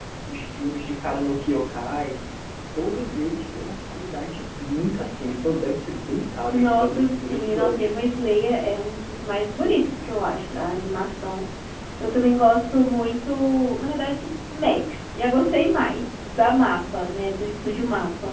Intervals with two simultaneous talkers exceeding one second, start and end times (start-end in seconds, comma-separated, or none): 6.5-7.9